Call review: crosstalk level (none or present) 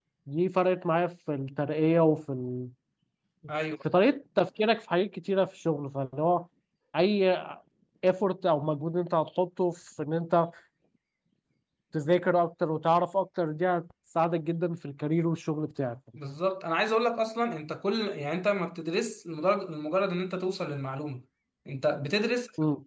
none